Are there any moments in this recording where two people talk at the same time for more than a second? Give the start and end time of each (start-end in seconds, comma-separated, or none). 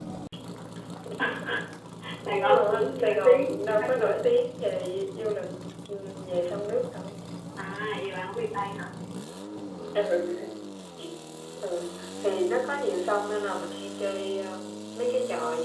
2.4-4.2